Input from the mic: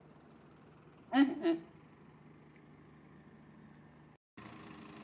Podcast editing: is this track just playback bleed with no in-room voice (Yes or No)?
No